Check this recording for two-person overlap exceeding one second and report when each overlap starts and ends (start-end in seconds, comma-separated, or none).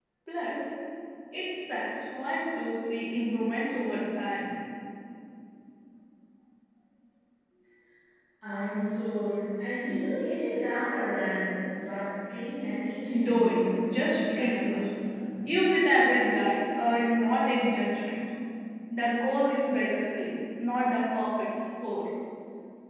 13.2-14.8